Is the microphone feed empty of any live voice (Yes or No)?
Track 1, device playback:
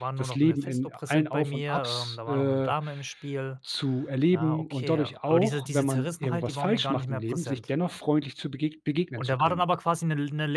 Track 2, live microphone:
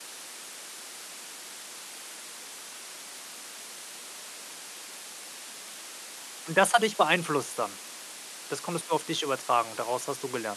No